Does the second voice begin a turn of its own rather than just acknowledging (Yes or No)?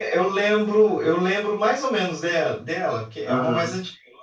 Yes